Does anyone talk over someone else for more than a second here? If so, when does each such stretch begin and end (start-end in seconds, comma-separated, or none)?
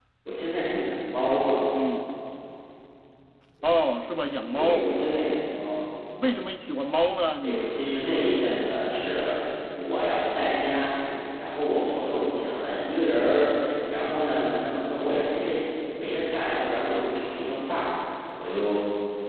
none